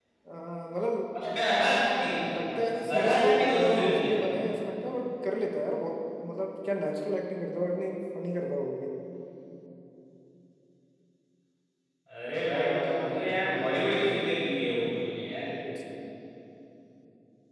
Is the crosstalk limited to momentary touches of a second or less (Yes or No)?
No